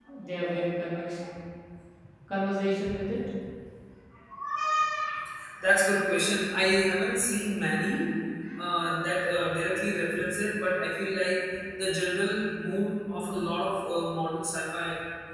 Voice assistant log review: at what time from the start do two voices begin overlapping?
none

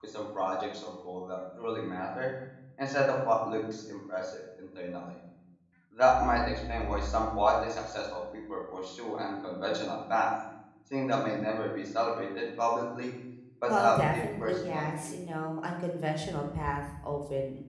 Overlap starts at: 13.7 s

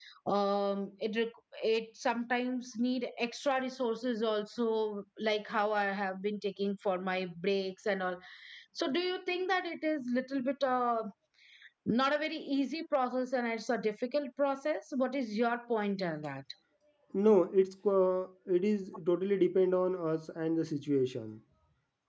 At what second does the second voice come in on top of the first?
none

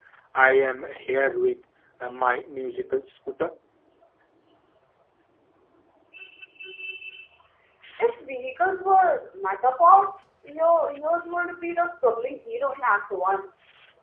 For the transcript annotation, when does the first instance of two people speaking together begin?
none

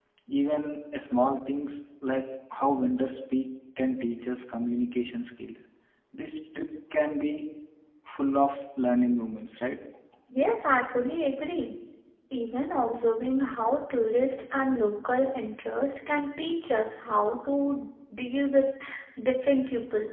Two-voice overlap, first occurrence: none

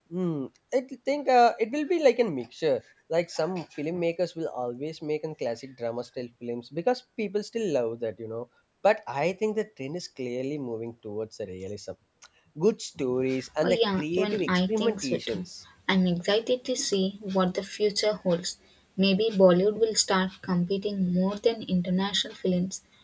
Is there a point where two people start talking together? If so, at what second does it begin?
13.6 s

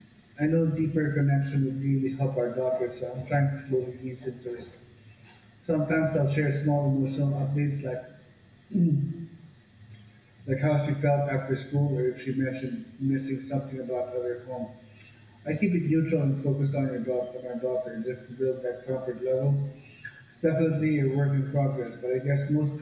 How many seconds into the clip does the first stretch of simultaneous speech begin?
none

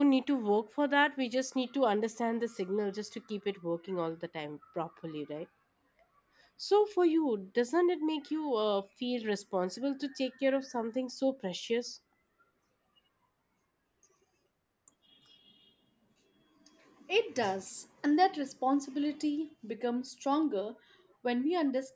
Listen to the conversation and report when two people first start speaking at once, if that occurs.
none

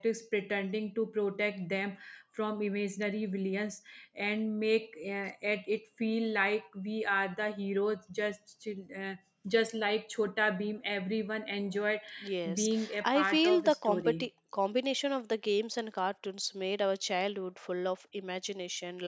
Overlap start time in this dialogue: 12.5 s

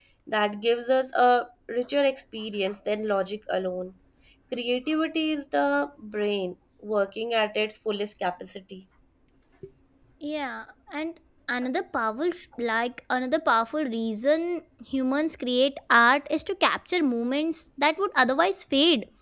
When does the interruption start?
none

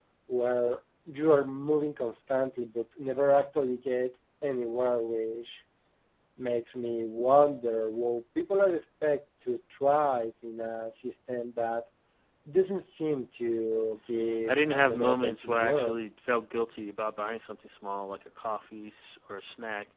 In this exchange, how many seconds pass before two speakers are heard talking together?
14.5 s

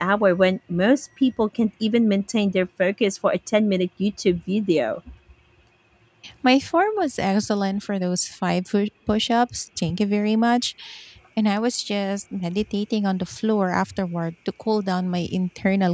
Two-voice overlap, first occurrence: none

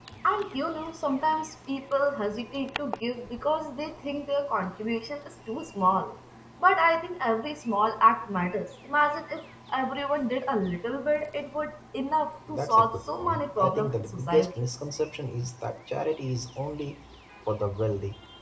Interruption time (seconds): 12.5 s

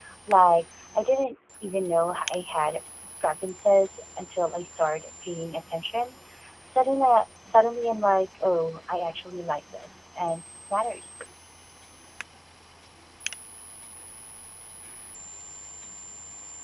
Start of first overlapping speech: none

